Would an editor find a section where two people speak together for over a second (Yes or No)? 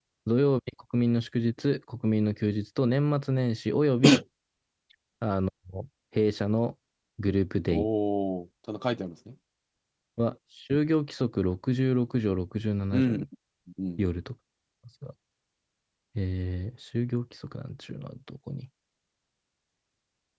No